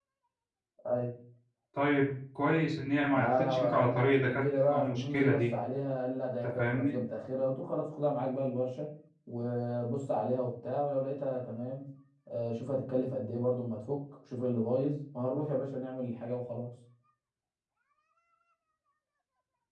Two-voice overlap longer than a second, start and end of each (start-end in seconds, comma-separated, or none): 3.1-5.5